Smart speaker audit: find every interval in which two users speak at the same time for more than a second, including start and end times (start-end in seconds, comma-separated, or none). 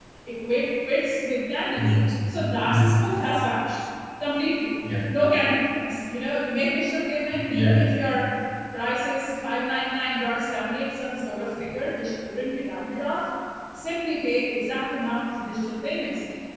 none